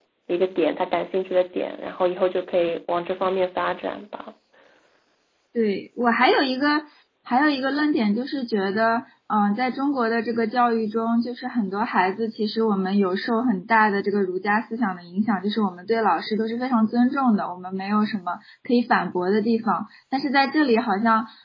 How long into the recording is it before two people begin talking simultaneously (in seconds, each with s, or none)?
none